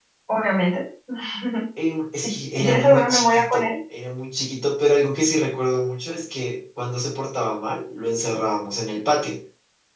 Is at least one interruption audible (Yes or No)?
Yes